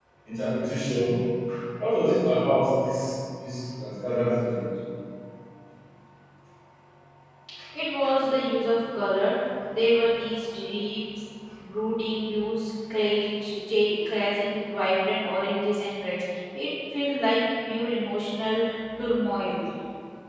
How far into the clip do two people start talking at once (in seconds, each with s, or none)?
none